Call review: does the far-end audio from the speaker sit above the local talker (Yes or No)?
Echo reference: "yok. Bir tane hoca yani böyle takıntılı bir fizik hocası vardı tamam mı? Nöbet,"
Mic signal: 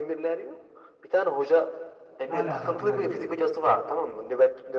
Yes